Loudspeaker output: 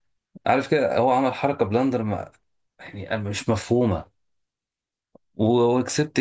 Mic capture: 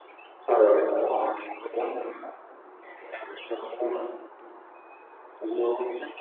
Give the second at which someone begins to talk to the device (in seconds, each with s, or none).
0.5 s